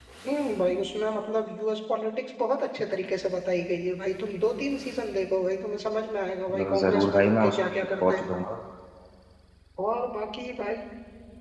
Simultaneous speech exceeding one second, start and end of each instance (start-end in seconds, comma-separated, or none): 6.5-8.2